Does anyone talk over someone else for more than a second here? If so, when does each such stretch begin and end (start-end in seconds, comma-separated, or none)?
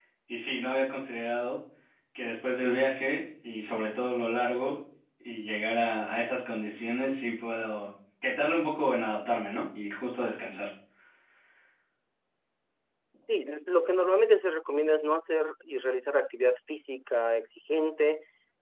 none